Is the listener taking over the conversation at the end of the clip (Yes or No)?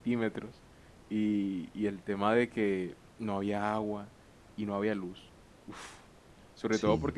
No